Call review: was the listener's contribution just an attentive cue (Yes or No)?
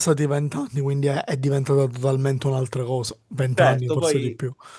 No